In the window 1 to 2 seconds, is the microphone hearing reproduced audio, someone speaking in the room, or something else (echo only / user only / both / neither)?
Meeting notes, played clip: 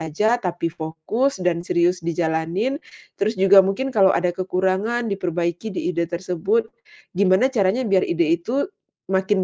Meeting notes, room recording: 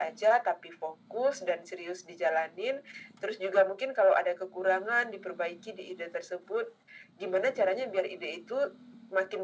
echo only